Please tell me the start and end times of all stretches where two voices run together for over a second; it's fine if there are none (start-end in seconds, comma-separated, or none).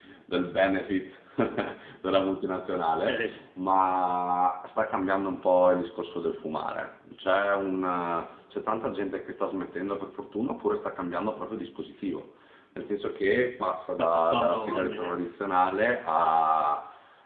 13.9-15.1